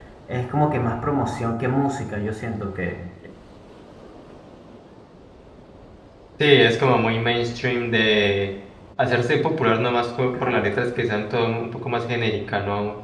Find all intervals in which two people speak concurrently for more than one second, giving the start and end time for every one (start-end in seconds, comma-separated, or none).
none